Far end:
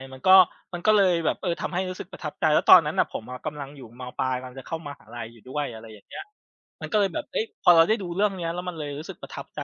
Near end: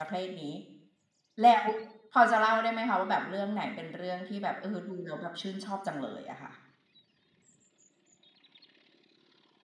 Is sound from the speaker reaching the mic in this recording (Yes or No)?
No